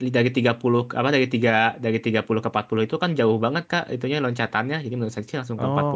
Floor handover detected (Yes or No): Yes